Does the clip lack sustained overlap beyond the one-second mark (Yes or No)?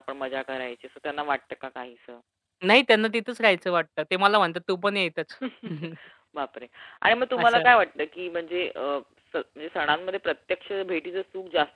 Yes